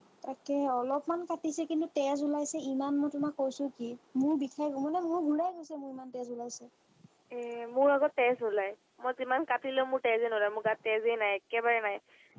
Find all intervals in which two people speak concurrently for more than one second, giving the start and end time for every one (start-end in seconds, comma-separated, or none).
none